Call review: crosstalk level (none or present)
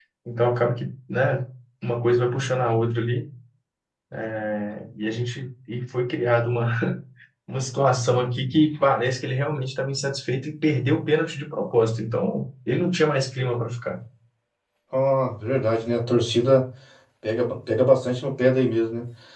none